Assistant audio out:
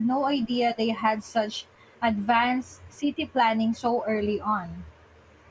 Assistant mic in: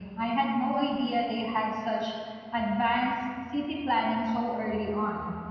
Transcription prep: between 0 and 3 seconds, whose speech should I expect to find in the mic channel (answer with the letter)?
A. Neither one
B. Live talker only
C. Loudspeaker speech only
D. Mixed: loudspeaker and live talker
C